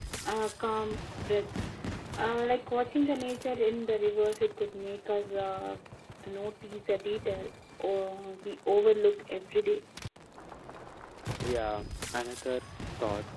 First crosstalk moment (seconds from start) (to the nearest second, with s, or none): none